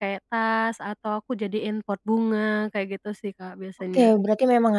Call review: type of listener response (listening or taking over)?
taking over